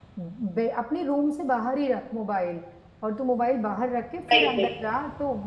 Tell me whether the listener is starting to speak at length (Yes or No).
No